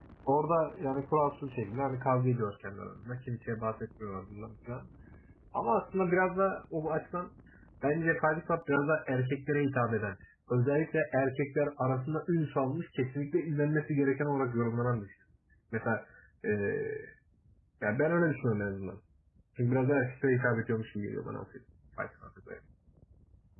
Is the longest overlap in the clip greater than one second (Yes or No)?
No